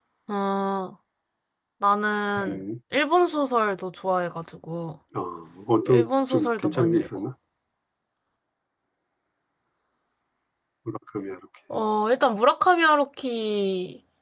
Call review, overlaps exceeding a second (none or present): present